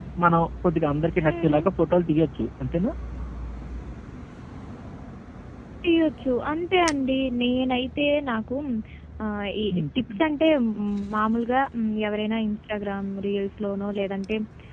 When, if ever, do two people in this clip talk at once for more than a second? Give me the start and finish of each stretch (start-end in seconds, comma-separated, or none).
none